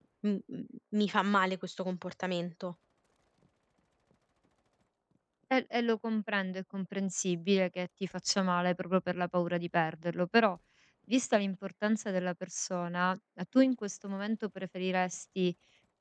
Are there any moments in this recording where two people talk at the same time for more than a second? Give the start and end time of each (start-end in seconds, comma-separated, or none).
none